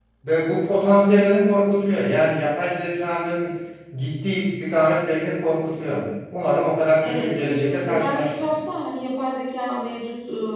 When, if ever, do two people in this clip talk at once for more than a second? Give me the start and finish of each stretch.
7.0-8.6

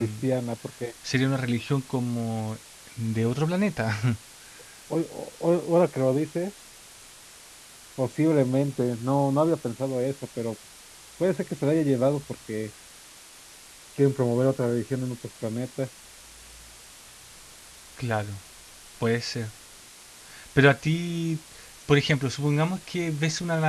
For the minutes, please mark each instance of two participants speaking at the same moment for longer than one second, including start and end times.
none

